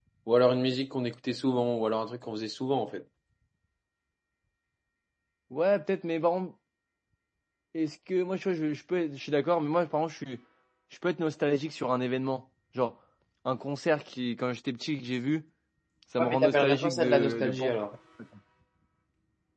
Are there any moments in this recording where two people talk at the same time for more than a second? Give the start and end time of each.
16.2-17.8

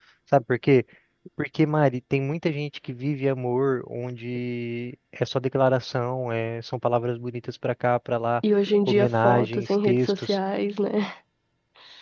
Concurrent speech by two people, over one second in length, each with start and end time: 8.9-10.4

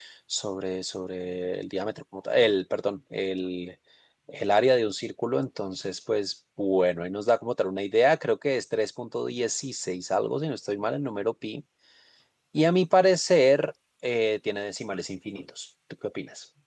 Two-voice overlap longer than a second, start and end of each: none

